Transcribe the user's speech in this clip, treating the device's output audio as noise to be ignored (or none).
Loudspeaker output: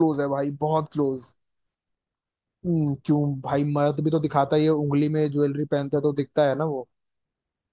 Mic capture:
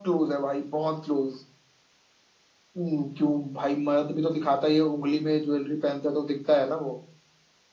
none